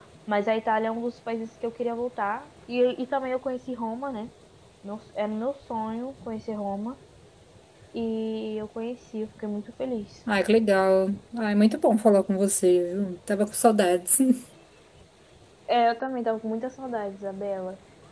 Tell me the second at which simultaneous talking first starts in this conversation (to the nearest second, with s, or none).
none